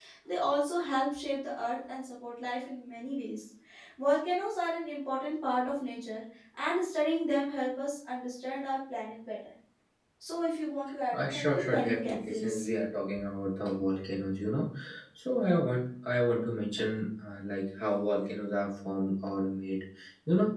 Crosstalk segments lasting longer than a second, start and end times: 11.1-12.6

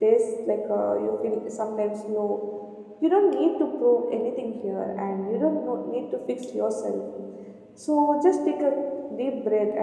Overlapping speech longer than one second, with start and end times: none

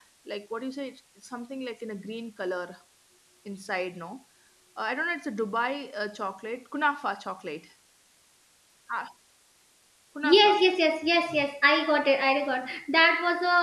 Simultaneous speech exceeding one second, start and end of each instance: none

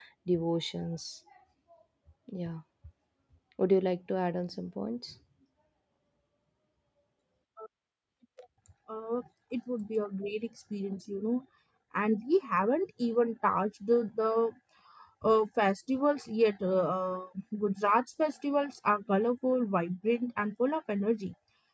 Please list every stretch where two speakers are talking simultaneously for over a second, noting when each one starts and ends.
none

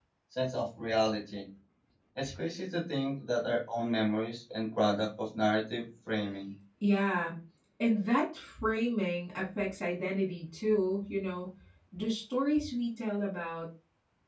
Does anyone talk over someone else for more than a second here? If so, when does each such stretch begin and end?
none

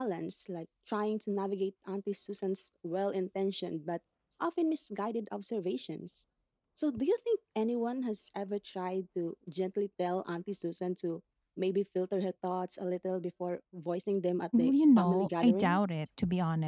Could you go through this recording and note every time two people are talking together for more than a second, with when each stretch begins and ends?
14.6-15.8

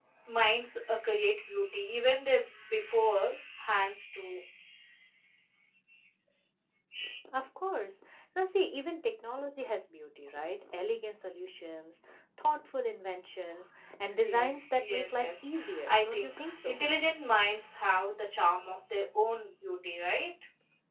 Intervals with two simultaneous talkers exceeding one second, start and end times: 14.2-16.8

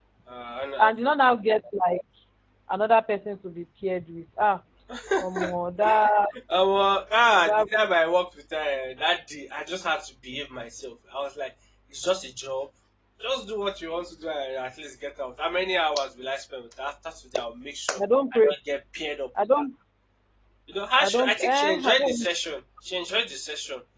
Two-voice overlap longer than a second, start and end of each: 21.0-22.2

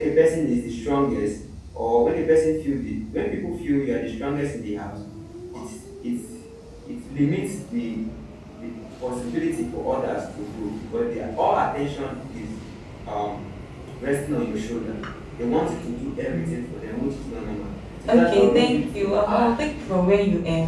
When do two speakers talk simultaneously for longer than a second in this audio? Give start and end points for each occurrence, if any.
18.1-19.6

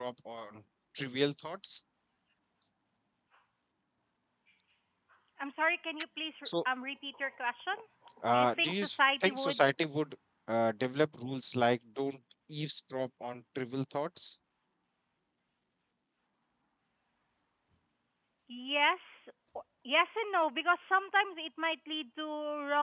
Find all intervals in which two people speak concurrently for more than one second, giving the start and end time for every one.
8.3-9.7

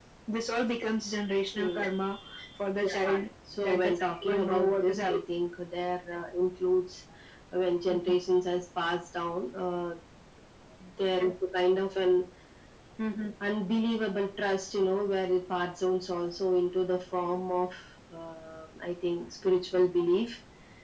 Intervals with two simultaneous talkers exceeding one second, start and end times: 3.6-5.2

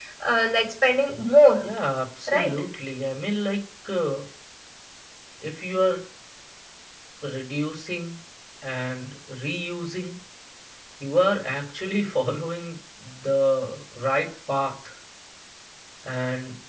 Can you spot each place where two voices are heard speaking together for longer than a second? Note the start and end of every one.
none

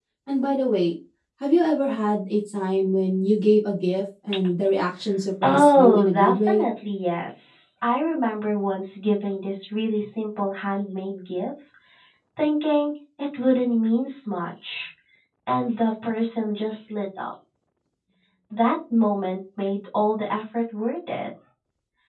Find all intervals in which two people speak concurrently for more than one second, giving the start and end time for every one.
5.4-6.7

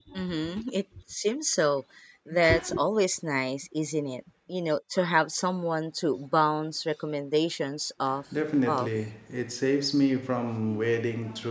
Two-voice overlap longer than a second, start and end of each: none

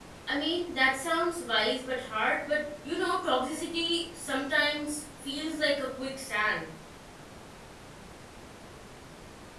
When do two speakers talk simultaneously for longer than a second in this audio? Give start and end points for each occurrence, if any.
none

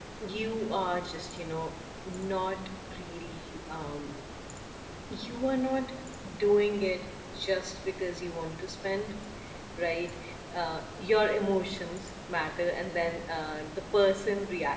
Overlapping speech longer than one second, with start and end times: none

